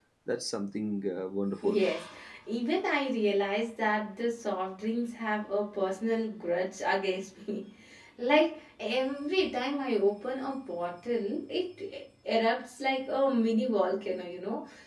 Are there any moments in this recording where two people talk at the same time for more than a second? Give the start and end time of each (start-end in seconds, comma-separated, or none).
none